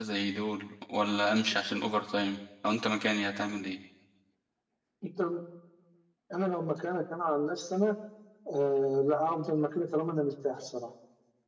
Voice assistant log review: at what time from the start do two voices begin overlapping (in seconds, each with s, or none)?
none